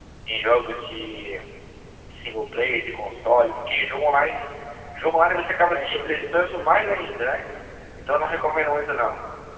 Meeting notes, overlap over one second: present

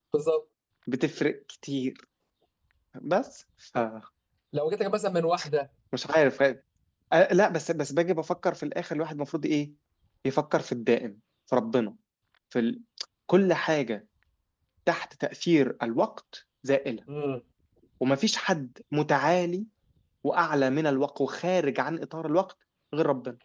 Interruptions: none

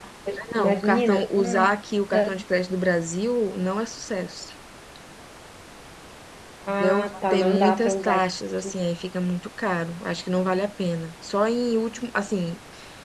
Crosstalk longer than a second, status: present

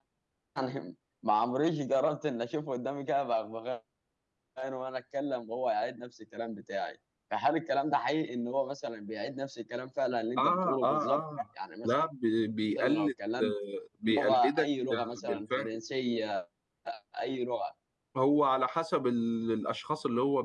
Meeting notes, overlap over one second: present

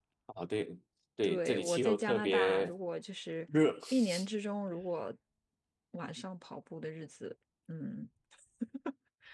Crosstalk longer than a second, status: present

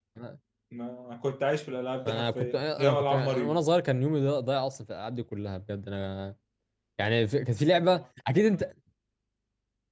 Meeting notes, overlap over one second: present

